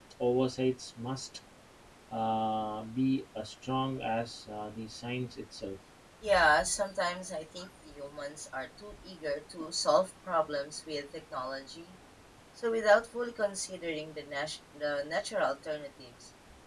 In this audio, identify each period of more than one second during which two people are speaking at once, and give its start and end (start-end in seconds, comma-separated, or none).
none